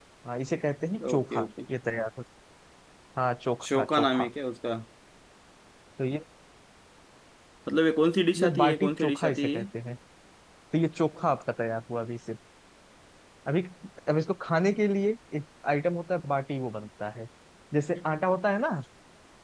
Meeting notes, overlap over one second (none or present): present